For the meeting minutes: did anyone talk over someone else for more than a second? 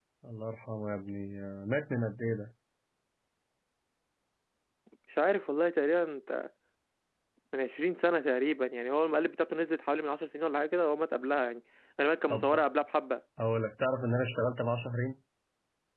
No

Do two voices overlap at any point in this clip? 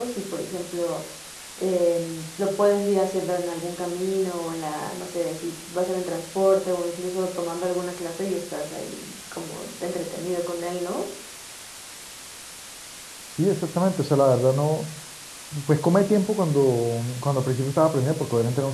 No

